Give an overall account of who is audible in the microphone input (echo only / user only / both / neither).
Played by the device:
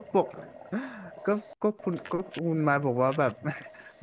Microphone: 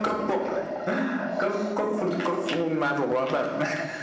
echo only